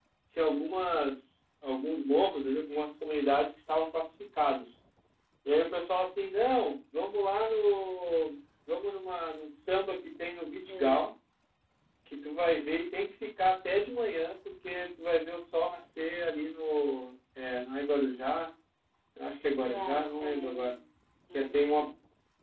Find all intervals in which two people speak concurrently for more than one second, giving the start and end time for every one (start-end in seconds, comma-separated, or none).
19.5-20.7